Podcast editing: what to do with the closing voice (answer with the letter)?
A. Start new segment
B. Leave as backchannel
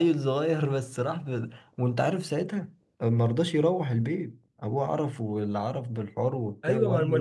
A